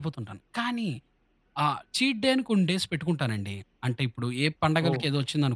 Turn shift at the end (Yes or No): No